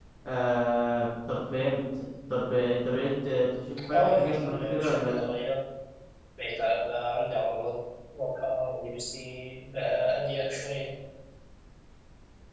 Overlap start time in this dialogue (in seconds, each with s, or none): 3.9 s